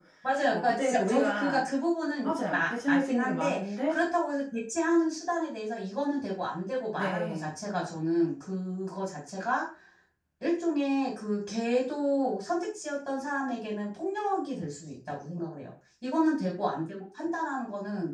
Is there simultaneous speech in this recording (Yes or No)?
Yes